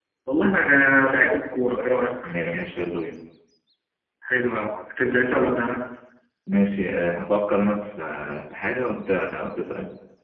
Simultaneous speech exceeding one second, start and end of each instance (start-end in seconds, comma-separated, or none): none